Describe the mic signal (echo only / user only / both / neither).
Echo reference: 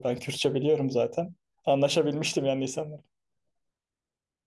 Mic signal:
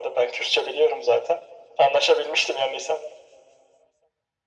echo only